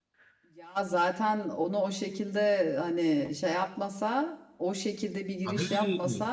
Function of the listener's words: listening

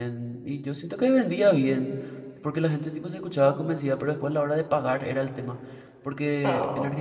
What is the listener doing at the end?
listening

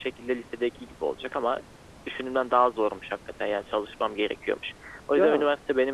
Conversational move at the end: listening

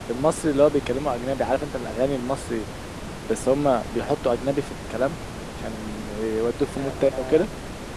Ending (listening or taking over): taking over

